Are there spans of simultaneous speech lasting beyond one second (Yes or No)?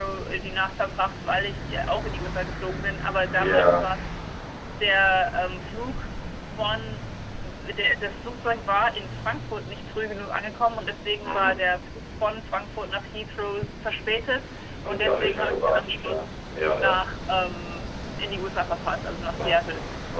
Yes